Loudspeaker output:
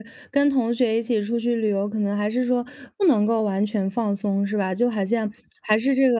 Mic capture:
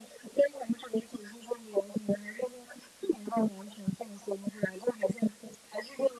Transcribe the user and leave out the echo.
none

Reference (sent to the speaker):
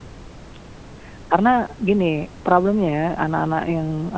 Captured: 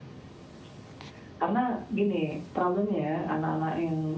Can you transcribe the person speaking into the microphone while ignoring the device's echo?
none

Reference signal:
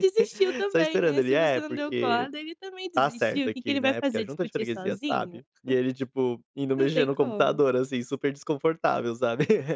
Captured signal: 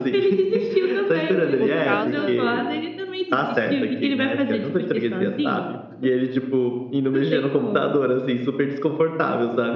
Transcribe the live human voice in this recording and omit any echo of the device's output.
por causa

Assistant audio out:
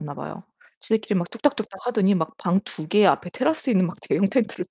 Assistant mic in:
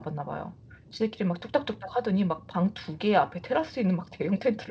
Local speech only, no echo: none

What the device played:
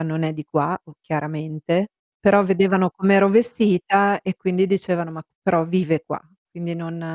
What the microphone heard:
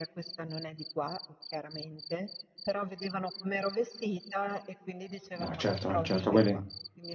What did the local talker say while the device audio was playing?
No certo no certo, quelli

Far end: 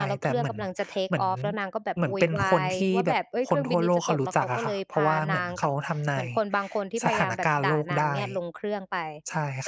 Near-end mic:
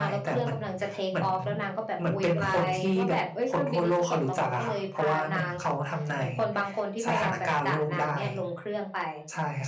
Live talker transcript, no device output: none

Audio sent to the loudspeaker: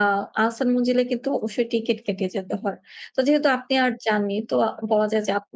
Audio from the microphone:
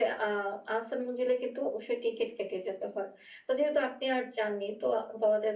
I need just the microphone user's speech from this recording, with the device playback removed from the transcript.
none

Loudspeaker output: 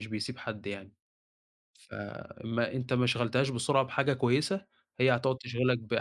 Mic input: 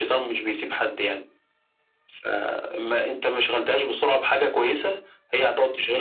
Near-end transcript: none

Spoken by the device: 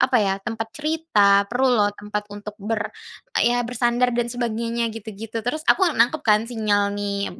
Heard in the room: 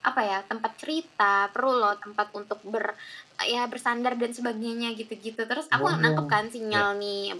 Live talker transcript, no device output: Oh, iya.

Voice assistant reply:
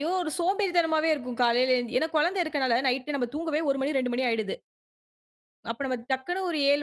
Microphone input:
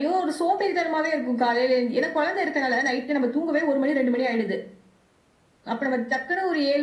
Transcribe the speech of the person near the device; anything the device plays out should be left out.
none

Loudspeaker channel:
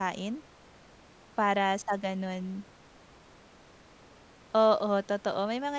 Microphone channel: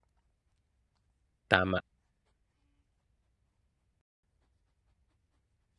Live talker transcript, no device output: Tama.

